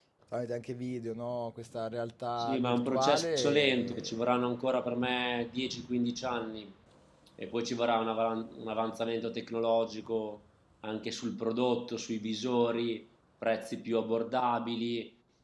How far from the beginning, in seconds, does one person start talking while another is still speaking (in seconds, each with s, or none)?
2.4 s